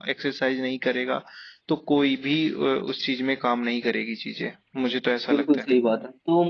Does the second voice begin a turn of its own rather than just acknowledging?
Yes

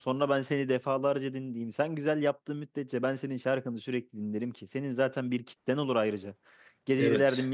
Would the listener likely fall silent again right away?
Yes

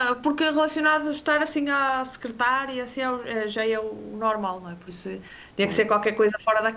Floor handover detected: No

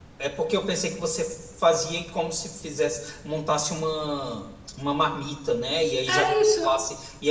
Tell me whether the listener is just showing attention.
Yes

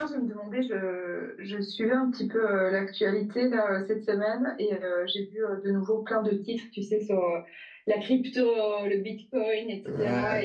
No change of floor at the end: Yes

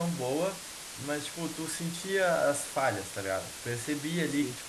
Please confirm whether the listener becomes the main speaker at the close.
No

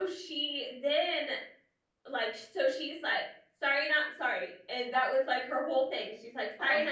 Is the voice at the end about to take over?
No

